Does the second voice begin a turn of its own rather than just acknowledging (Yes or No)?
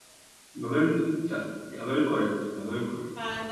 Yes